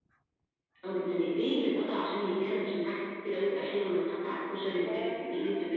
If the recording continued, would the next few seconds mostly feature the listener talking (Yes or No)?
Yes